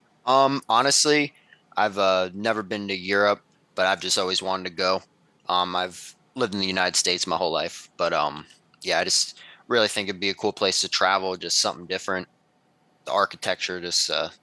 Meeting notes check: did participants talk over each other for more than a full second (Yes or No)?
No